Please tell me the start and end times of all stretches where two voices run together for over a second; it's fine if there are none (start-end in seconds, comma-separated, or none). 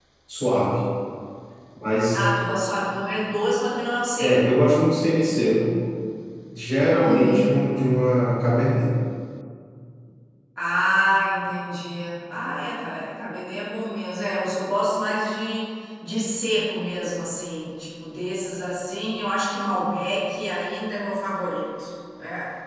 none